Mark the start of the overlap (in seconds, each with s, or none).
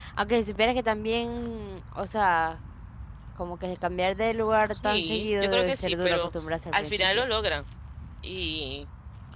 4.7 s